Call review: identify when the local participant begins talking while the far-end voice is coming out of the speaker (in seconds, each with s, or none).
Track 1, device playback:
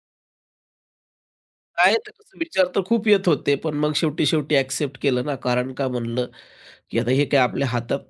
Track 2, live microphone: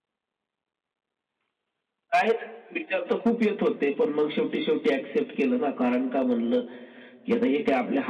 none